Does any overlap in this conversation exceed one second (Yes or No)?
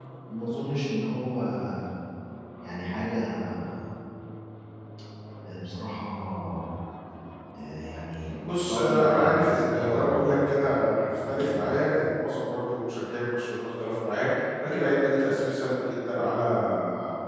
Yes